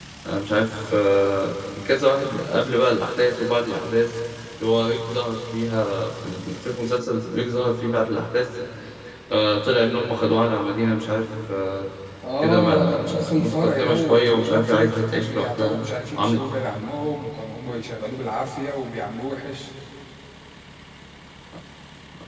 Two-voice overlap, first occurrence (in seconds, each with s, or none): 12.4 s